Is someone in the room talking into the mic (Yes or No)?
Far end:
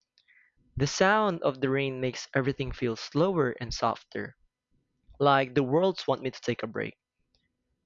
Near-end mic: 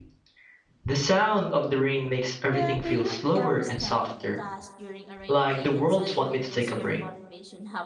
Yes